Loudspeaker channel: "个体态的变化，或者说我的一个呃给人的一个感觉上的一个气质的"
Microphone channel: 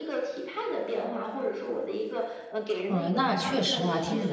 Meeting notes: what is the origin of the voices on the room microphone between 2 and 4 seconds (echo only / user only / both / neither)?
both